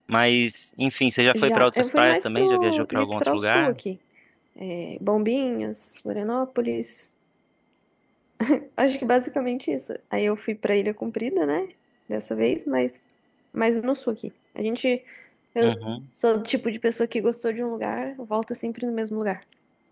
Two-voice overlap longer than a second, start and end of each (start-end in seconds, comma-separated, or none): 1.3-3.8